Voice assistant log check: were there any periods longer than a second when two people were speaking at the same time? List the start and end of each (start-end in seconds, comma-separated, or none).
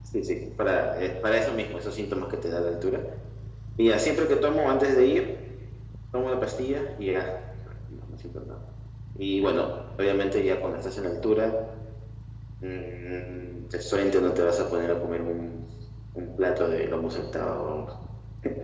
none